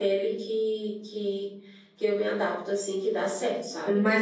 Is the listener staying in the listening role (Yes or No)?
No